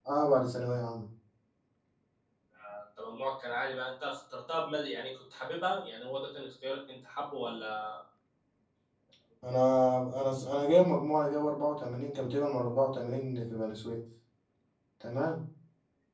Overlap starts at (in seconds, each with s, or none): none